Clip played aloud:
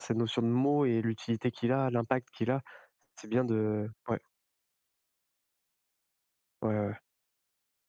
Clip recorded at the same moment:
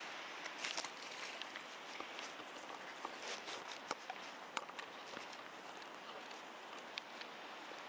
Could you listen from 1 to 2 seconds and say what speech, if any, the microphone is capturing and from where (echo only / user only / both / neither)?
neither